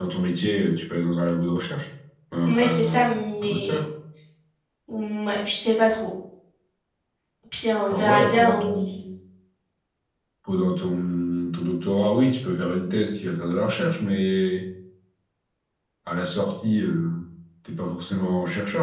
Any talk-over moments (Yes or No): Yes